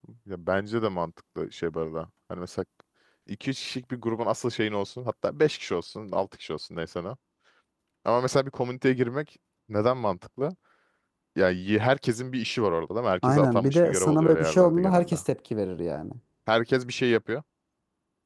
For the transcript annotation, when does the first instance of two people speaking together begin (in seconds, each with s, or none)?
13.2 s